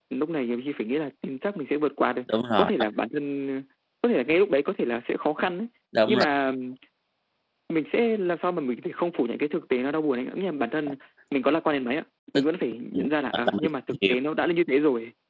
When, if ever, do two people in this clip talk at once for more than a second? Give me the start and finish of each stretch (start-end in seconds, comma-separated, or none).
12.9-14.2